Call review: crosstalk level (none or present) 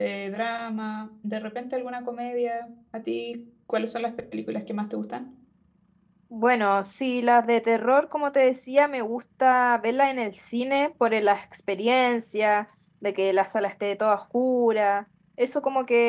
none